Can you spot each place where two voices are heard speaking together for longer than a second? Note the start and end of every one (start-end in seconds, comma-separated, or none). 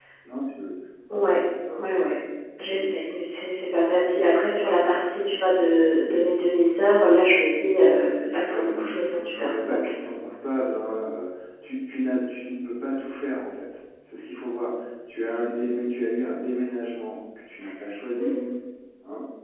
8.5-9.9